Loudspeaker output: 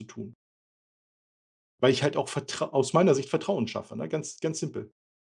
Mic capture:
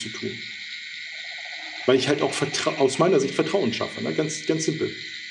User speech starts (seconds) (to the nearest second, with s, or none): none